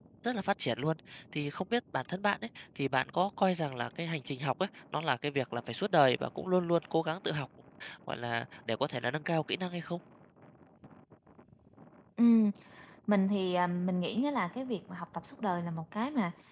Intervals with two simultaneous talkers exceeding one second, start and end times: none

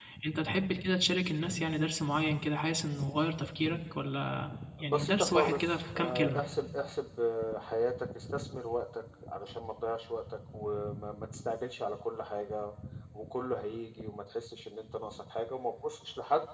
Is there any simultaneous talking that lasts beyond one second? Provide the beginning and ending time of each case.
4.8-6.4

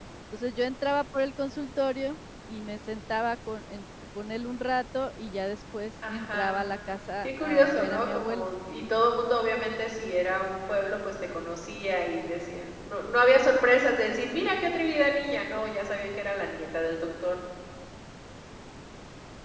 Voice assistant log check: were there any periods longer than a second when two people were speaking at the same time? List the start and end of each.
7.2-8.5

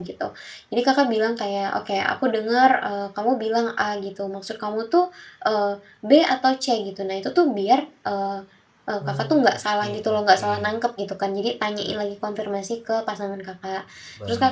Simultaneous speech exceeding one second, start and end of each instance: 9.0-10.5

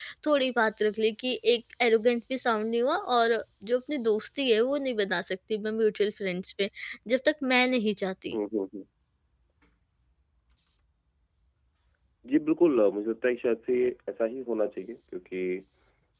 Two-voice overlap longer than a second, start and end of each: none

